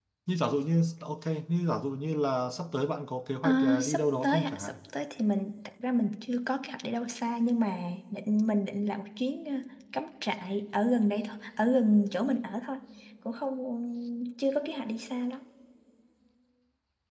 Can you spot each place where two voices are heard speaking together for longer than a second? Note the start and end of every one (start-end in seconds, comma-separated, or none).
3.4-4.7